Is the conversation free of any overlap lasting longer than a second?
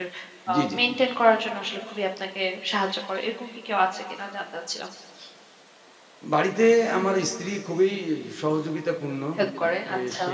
Yes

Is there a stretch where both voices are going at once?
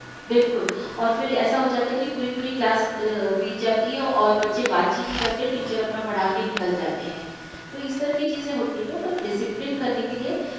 No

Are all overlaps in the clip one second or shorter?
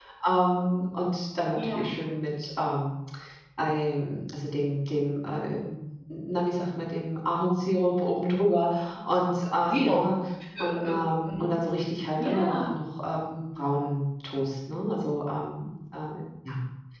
Yes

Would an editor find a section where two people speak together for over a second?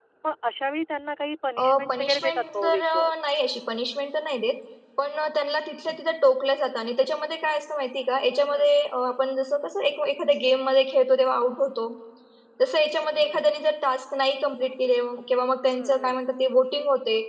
Yes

